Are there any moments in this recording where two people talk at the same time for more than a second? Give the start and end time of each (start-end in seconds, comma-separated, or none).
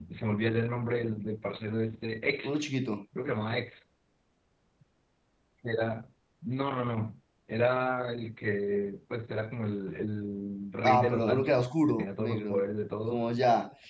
10.8-12.6